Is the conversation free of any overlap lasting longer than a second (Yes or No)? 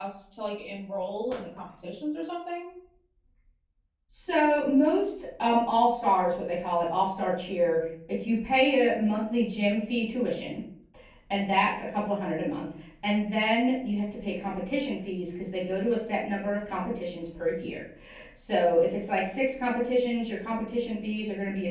Yes